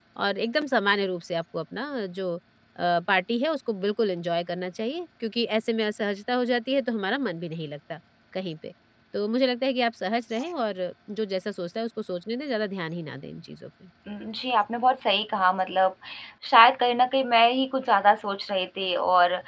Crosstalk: none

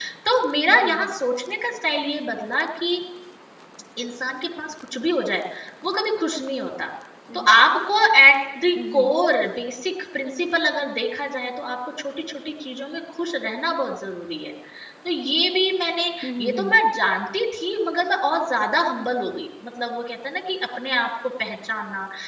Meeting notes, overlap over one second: none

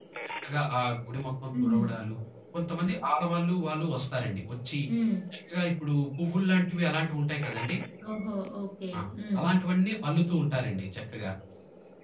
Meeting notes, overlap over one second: none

